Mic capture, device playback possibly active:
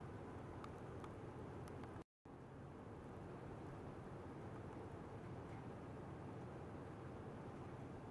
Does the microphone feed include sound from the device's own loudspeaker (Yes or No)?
No